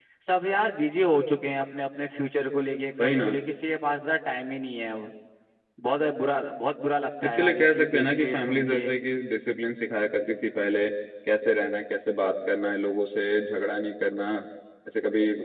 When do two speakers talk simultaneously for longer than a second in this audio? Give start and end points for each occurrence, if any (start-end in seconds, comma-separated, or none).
7.2-8.9